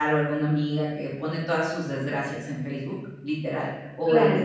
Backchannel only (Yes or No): Yes